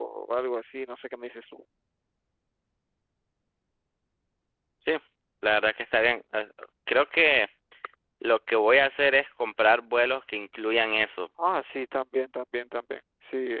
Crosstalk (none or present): none